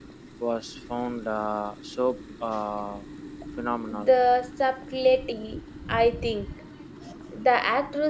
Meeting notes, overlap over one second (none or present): none